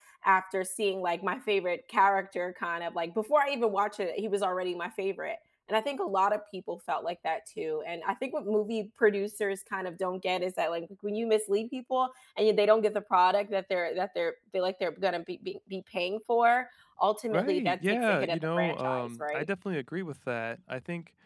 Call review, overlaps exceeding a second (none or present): present